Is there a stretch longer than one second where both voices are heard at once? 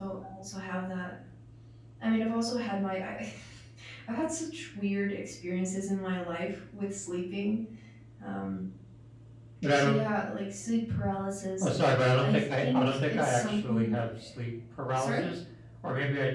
Yes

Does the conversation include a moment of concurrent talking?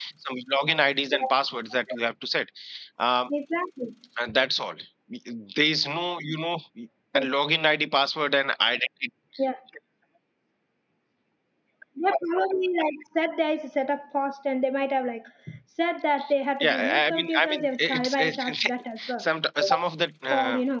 Yes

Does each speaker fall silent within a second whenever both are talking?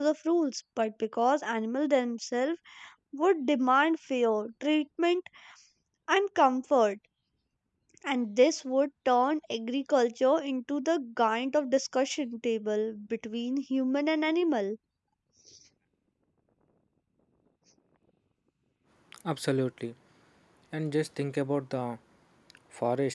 Yes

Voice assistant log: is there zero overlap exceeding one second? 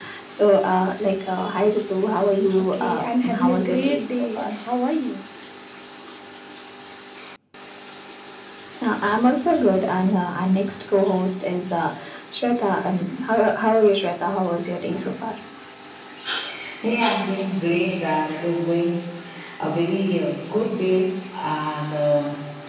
No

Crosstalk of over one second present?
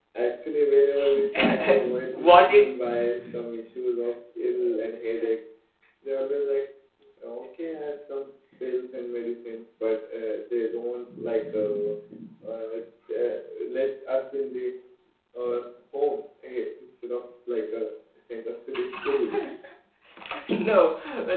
Yes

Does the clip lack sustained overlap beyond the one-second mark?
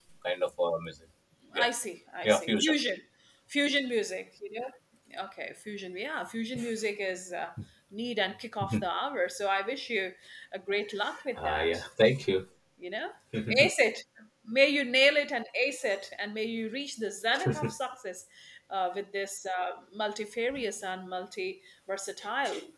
Yes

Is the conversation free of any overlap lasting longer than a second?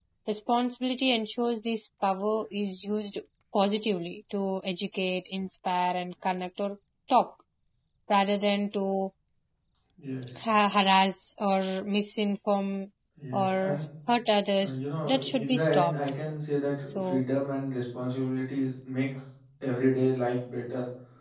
No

